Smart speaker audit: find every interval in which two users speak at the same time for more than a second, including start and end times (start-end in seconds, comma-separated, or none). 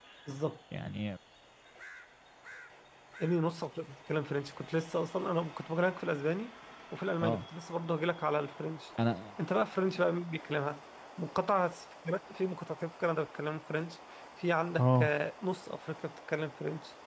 none